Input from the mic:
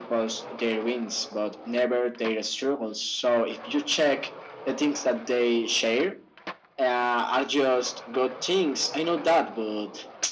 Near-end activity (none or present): none